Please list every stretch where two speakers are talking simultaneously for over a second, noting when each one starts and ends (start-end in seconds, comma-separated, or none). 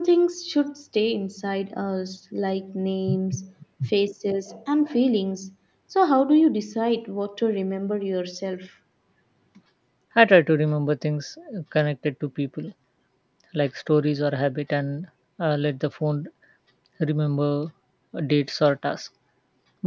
none